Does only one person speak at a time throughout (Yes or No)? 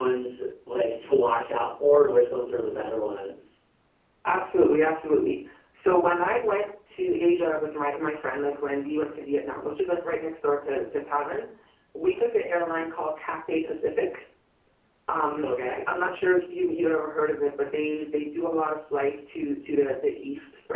Yes